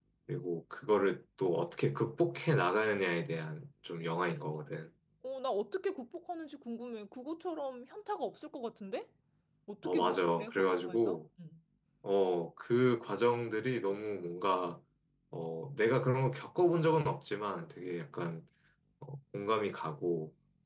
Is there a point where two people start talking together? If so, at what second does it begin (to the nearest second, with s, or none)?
10 s